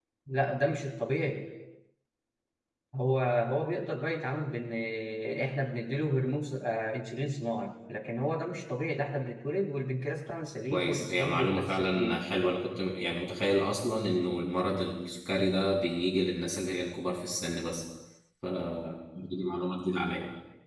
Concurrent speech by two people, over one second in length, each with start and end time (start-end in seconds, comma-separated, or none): 10.7-12.2